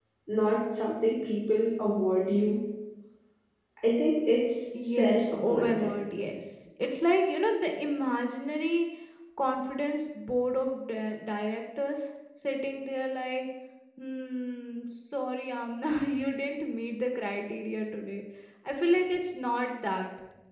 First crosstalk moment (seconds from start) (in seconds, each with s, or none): 4.7 s